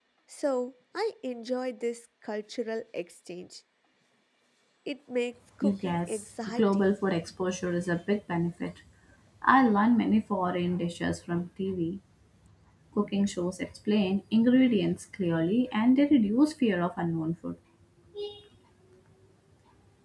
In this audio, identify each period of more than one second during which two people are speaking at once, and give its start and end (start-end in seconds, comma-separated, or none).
5.6-7.0